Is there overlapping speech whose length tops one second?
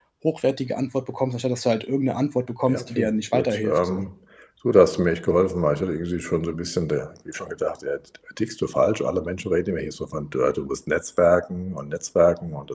Yes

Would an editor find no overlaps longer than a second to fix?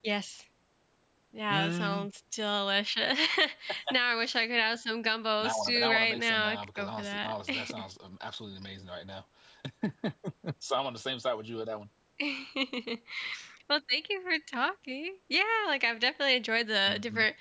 No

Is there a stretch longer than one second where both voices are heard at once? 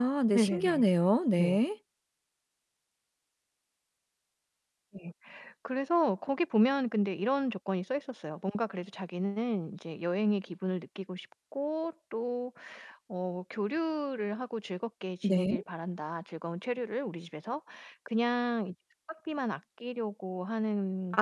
No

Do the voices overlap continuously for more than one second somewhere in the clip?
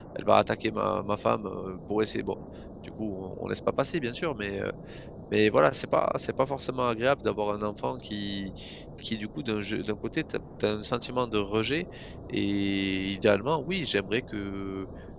No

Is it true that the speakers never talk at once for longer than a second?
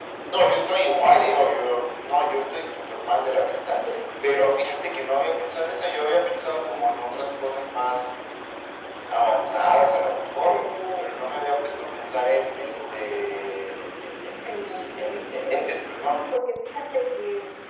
No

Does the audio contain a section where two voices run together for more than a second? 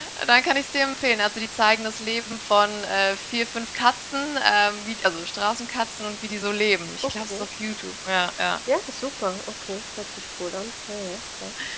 No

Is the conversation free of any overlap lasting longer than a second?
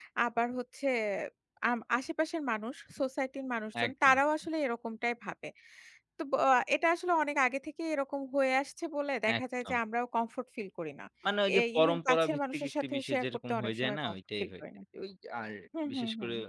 No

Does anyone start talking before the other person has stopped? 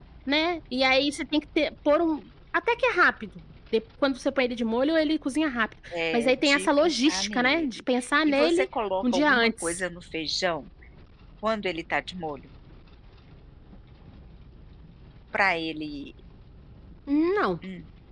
Yes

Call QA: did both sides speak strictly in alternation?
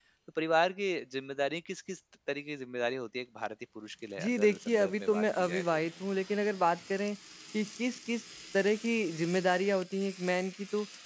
No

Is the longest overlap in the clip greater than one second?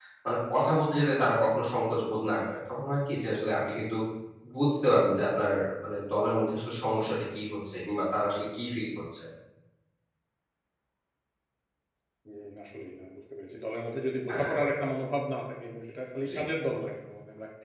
No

